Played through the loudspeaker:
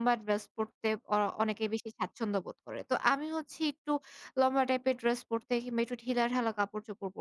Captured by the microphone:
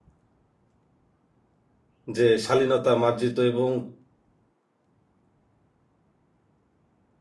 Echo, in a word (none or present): none